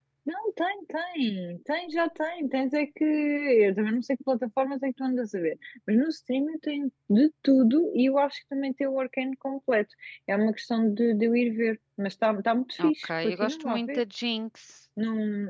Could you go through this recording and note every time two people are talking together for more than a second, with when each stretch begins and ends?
12.8-14.0

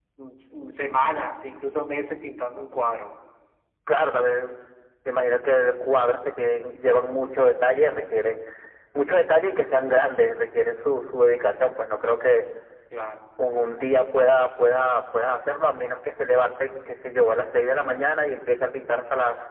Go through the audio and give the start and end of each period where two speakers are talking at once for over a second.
none

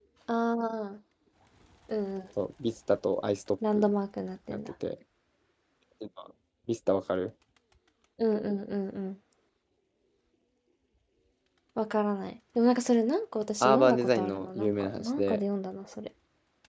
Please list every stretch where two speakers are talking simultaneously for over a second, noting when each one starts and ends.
13.6-15.4

